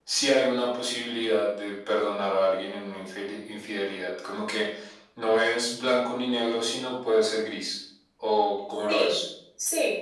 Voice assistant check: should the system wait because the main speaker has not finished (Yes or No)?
No